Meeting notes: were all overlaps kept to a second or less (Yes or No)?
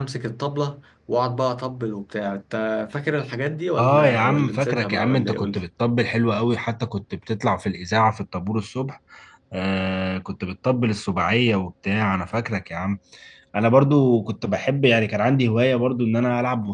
No